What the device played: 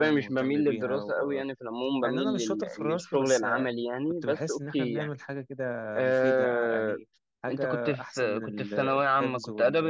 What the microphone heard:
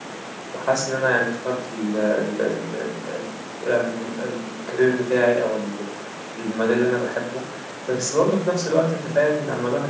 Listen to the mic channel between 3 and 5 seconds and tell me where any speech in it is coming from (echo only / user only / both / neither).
user only